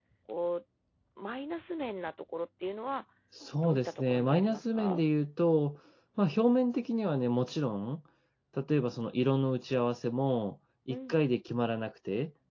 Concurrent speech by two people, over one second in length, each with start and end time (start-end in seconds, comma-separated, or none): 3.6-5.0